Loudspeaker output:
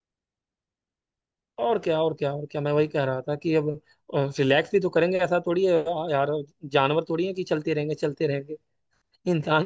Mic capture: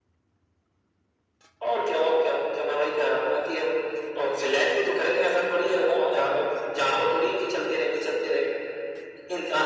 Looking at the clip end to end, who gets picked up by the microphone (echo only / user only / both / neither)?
echo only